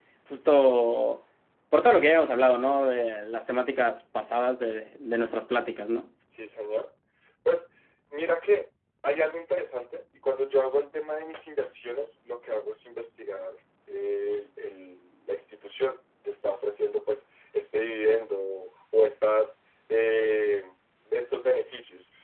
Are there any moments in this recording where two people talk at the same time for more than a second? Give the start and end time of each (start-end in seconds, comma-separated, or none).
none